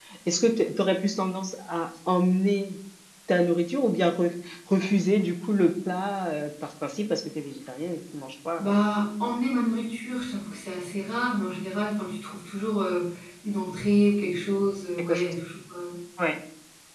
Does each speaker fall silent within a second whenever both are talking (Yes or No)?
Yes